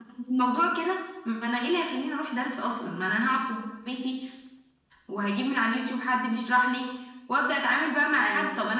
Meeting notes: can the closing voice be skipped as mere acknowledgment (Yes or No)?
Yes